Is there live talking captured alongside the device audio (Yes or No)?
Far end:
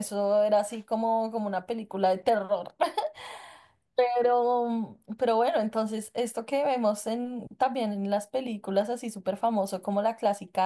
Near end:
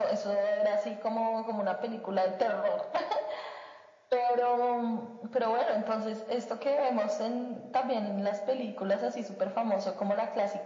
No